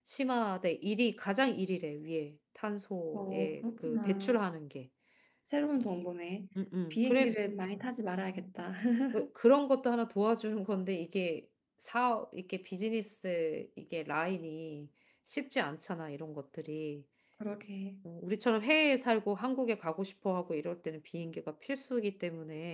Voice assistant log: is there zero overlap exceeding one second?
No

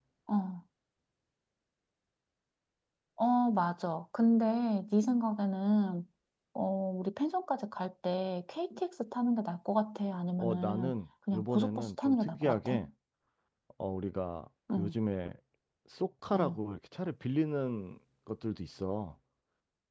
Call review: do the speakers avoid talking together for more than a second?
No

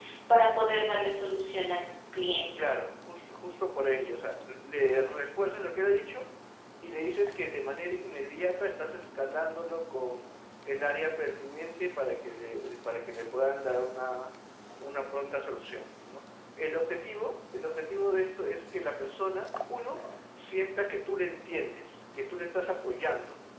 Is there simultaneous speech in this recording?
No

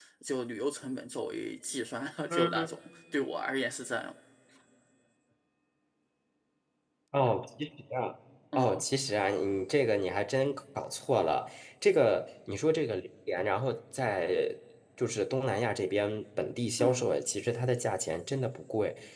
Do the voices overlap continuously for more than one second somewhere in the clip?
No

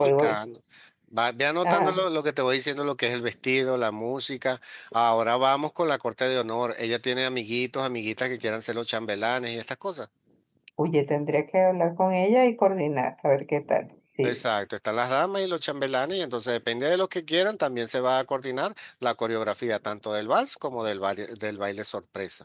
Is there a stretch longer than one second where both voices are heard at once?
No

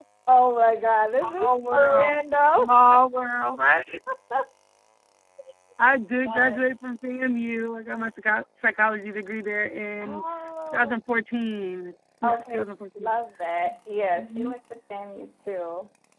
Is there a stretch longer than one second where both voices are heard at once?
Yes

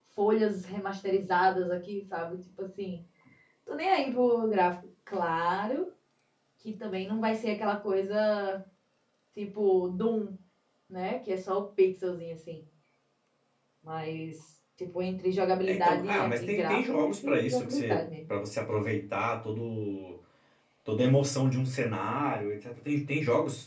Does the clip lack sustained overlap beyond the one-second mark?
No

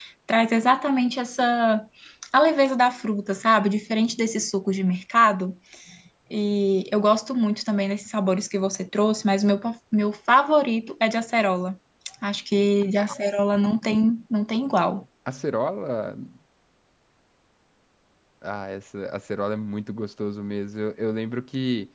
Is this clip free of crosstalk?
Yes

